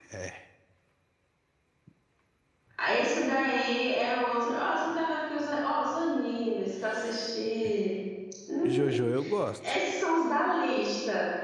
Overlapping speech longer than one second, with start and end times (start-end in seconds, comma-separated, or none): none